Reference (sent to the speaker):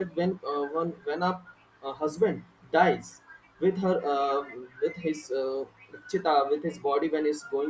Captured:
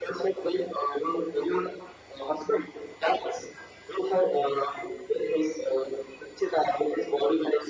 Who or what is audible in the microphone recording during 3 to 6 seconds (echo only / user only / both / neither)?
echo only